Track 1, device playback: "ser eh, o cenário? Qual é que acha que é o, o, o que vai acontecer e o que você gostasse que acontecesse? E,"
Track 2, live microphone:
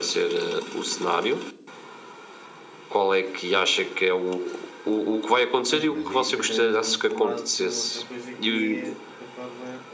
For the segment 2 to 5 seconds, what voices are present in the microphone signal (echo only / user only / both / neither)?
echo only